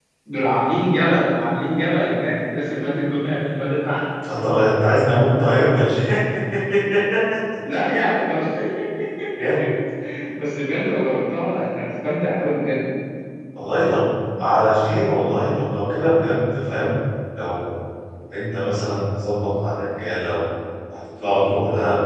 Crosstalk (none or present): none